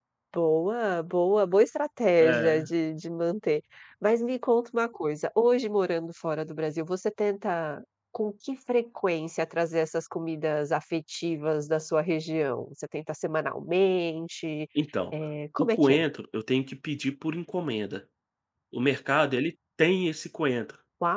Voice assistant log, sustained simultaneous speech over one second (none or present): none